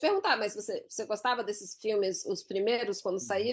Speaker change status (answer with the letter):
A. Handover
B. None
A